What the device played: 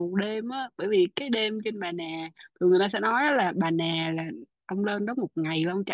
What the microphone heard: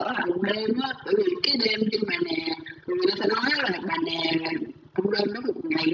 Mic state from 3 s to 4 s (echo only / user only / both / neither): echo only